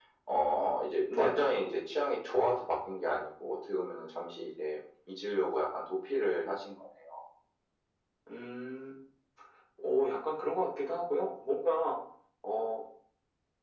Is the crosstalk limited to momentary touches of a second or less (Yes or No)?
Yes